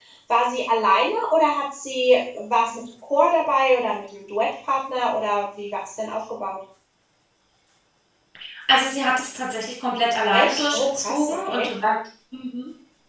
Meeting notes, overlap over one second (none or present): present